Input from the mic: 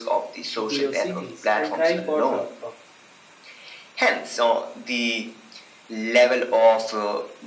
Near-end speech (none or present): present